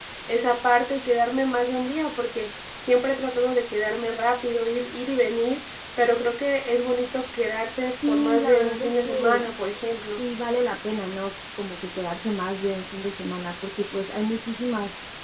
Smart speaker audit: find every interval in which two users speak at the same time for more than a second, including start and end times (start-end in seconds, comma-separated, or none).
8.1-9.5